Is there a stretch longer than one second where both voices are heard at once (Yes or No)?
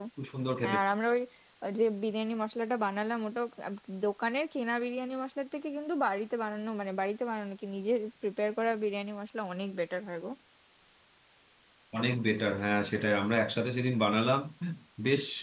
No